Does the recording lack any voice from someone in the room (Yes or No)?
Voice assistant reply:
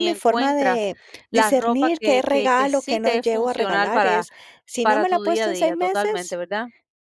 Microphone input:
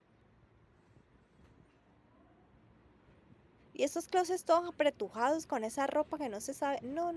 No